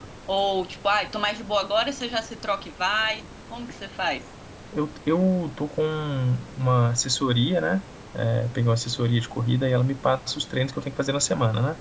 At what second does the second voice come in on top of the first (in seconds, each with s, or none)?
none